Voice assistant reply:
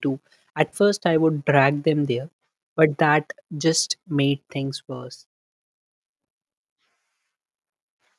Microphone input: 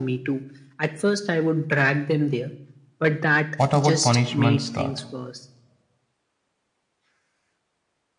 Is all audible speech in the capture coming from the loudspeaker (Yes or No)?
No